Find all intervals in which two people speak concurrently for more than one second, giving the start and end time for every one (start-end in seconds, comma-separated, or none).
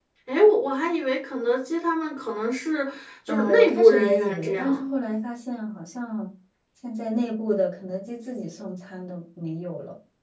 3.3-4.8